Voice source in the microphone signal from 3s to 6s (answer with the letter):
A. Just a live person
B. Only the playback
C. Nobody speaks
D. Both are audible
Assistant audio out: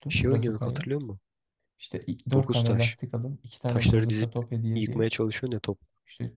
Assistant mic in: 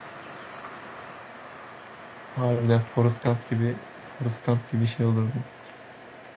A